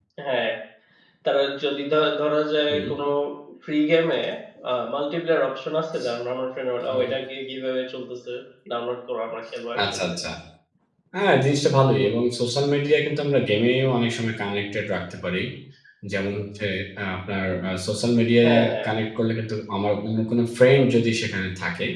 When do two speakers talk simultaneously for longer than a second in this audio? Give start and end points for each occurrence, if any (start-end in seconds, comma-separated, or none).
none